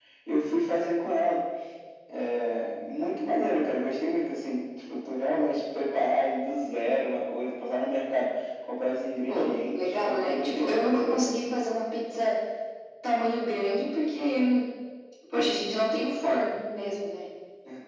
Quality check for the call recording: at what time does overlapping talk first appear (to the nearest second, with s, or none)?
9 s